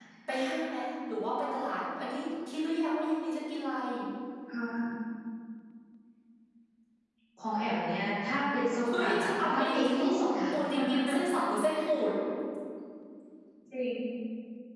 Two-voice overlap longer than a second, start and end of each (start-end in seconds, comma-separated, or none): 8.8-10.2